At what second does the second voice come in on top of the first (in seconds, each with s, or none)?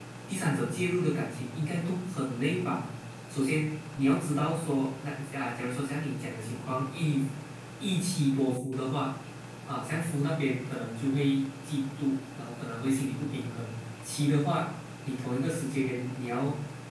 none